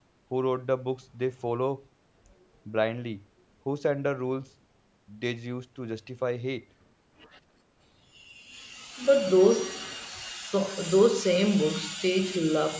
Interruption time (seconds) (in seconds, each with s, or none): none